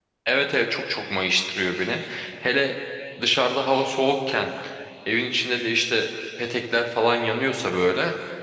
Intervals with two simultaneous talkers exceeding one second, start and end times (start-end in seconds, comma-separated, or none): none